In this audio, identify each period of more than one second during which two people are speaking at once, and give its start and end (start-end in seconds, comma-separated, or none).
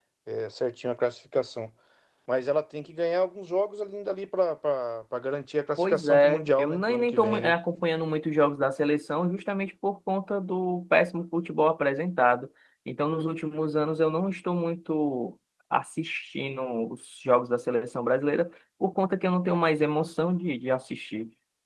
5.8-7.5